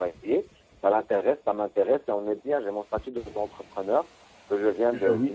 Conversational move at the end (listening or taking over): listening